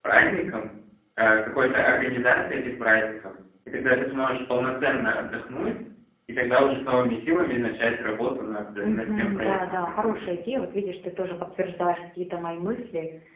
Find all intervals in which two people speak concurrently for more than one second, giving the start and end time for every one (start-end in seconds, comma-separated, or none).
8.8-10.3